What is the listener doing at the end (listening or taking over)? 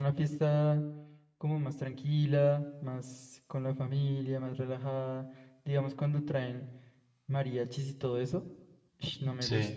listening